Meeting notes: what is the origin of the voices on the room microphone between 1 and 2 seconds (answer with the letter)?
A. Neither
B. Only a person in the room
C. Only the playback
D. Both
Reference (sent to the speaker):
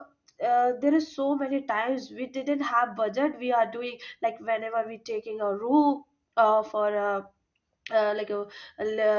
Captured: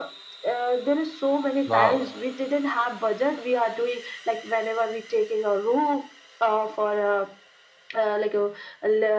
D